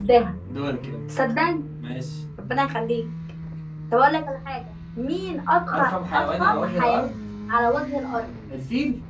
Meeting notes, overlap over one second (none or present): present